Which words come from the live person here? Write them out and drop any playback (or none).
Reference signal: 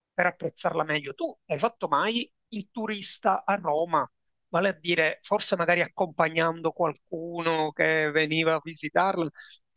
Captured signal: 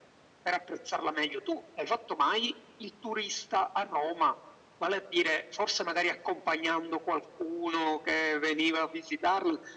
none